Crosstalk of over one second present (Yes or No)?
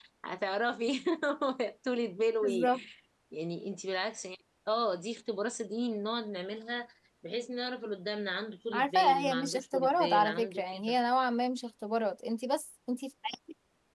Yes